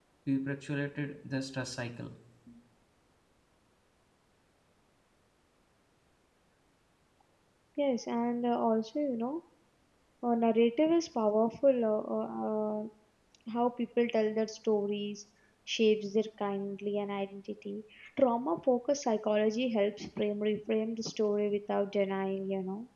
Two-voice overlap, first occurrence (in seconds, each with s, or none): none